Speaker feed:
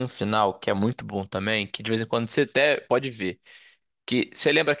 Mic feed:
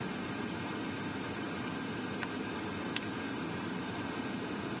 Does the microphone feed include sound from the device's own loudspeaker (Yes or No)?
No